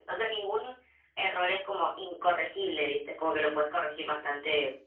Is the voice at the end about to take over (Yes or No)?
No